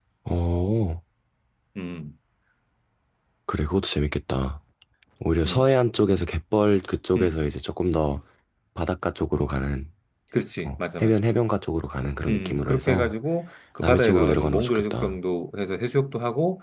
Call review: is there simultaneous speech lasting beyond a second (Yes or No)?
Yes